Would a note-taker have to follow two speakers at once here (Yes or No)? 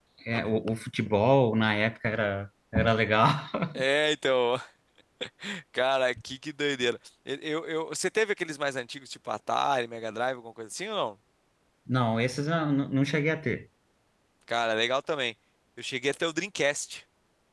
No